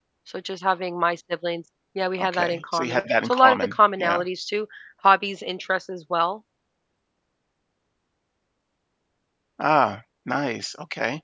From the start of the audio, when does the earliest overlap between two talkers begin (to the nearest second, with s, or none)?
2 s